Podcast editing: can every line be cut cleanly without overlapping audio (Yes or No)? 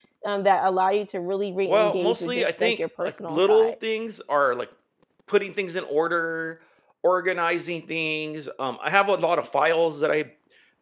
No